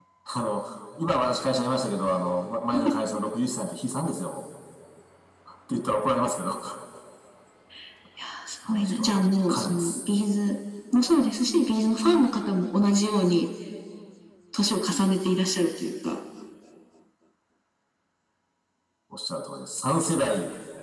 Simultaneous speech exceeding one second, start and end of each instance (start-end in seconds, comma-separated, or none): 8.7-10.0